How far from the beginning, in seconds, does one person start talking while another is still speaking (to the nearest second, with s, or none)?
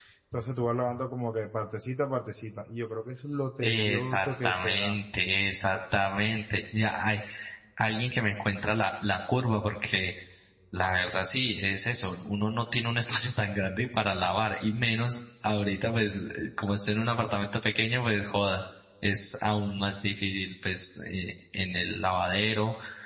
4 s